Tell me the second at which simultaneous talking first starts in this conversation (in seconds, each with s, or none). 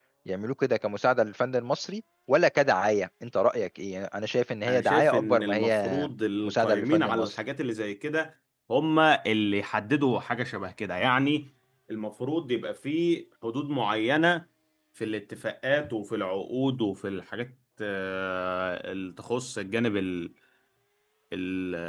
4.7 s